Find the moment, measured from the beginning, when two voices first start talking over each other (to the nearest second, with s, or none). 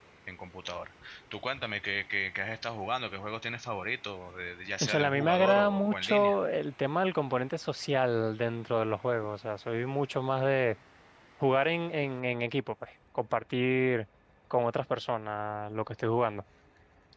5 s